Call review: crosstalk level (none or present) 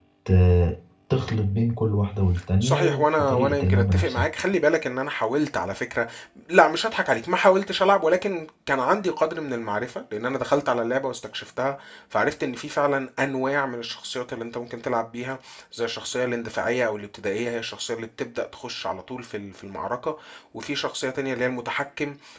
present